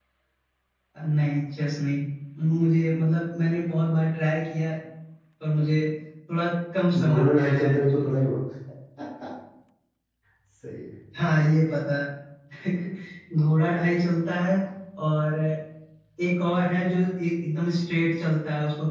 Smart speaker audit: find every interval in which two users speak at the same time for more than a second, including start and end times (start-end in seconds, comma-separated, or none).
7.0-8.3